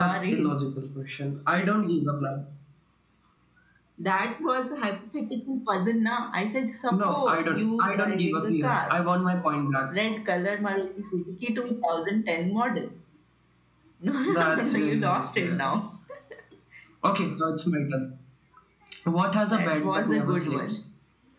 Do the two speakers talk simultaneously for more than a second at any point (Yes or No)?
Yes